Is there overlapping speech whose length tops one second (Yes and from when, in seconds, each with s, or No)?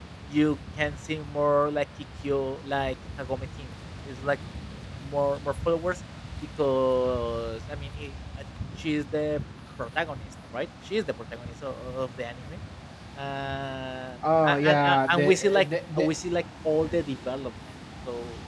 Yes, from 14.2 s